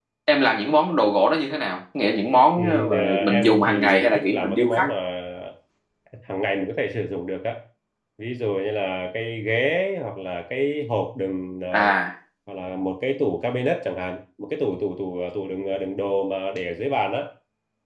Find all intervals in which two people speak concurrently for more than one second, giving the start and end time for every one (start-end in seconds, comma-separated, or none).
2.6-4.9